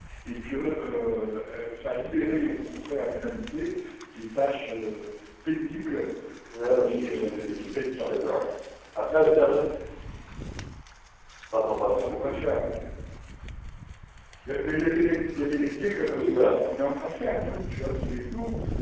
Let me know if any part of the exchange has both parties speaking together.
Yes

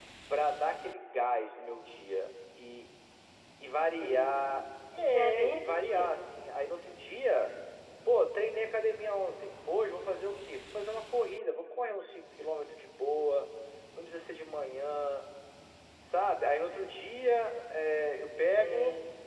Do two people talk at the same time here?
Yes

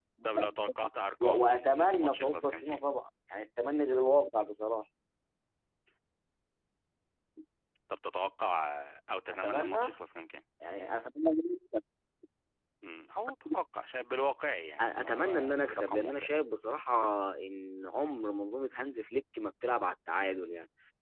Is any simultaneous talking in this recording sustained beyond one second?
Yes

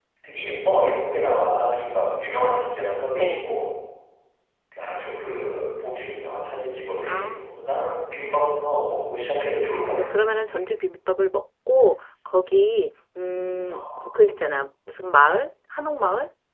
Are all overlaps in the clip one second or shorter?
Yes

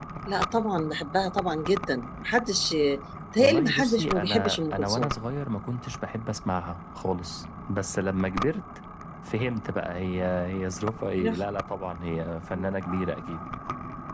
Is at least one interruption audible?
Yes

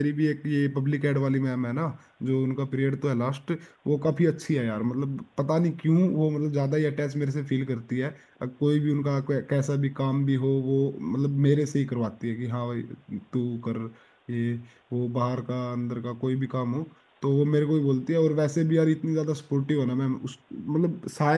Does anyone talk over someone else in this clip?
No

